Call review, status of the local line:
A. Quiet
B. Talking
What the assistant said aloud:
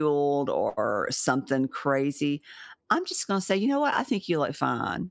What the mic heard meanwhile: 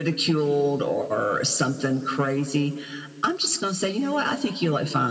A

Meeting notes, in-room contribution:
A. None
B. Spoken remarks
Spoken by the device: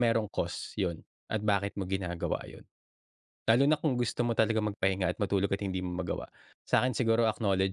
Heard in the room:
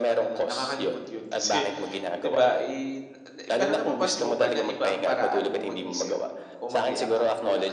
B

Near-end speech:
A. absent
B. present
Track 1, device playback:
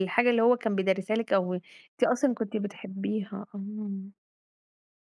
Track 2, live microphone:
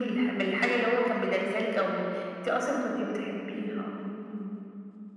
A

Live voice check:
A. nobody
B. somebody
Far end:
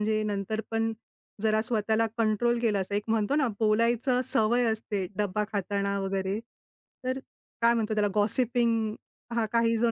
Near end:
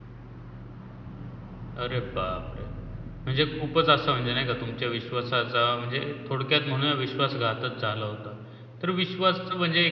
B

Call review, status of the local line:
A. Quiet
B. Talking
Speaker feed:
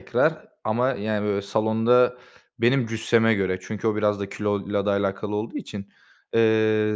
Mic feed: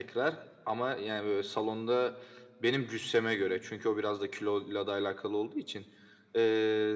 A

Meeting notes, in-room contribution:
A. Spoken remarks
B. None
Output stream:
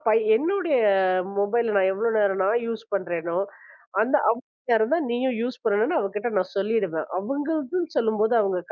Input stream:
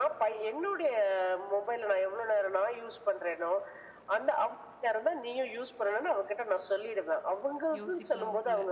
A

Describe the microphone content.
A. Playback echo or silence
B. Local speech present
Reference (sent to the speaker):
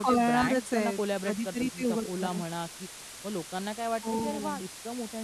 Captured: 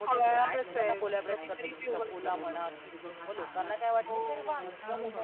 B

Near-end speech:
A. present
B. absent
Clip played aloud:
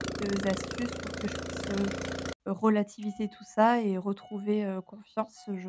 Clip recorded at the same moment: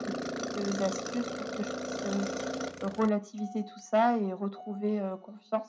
B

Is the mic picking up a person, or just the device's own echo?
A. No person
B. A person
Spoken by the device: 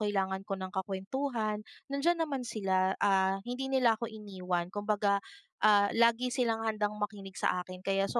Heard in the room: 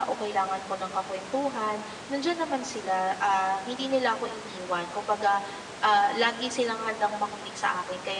A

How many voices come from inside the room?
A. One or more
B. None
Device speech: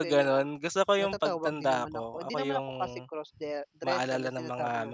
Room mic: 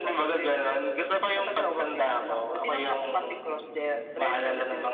B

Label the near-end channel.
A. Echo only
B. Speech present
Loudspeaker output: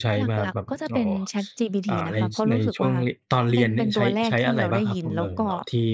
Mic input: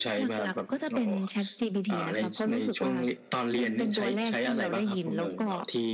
A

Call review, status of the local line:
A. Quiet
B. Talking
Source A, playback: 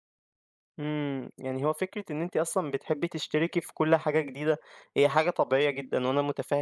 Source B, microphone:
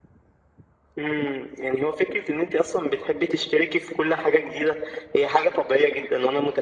A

